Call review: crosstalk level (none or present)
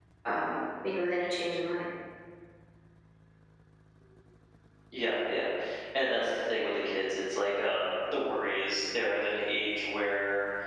none